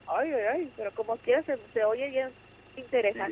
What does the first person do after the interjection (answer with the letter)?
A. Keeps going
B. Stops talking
B